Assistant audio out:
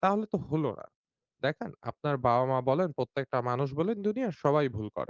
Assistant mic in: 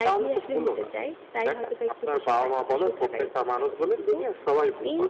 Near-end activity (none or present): present